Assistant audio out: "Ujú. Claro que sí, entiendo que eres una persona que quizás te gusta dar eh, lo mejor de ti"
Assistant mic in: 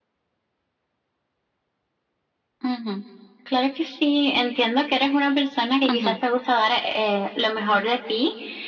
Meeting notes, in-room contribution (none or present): present